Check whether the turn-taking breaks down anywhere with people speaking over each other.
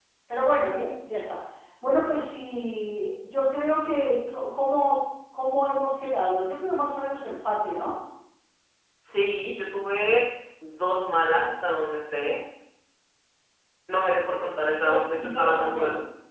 Yes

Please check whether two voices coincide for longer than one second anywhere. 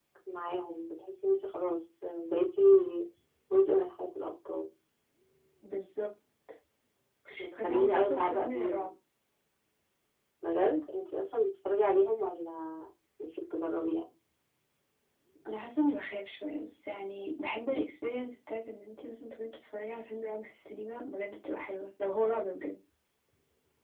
Yes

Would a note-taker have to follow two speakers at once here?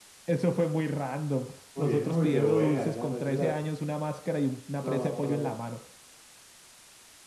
Yes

